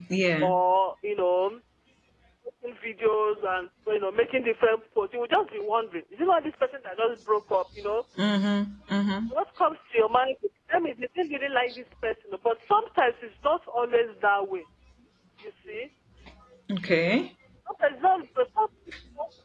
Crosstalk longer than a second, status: none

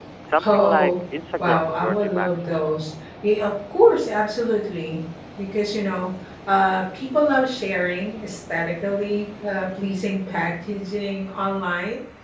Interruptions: present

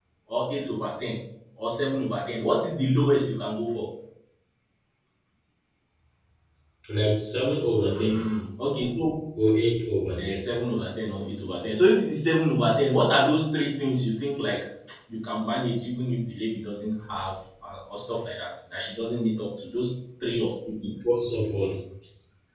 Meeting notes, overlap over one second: none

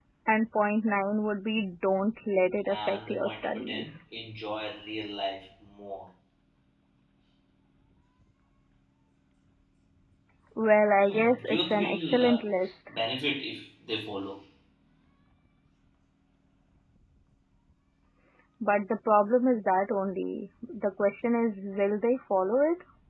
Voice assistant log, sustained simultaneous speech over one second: present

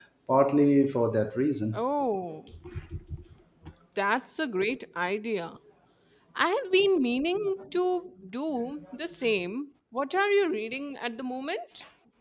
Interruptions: none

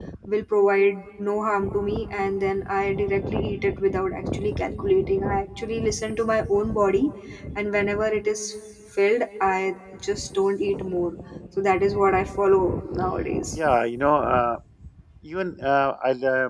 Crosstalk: none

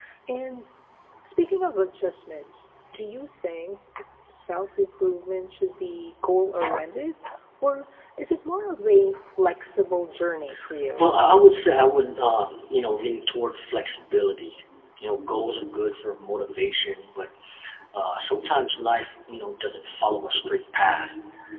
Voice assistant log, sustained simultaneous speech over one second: none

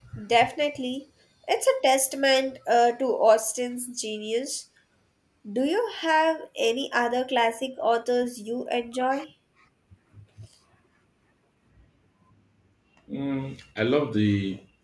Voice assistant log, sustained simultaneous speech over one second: none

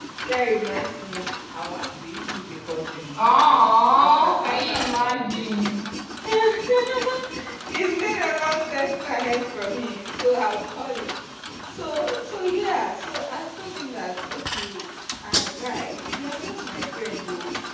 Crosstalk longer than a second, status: present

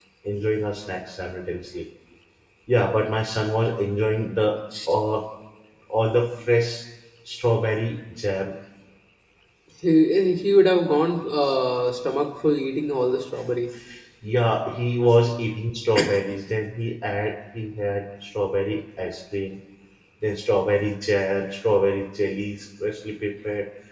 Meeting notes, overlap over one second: none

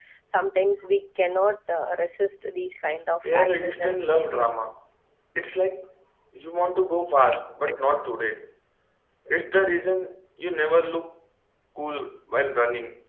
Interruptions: present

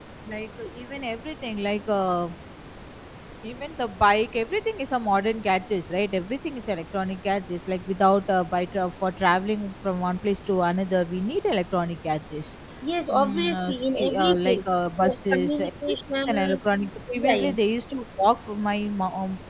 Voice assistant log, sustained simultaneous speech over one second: present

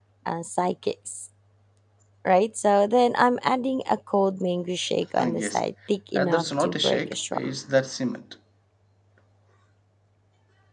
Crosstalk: present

